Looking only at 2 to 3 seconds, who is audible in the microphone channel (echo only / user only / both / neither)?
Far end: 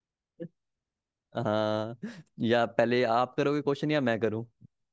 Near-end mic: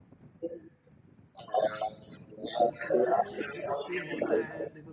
both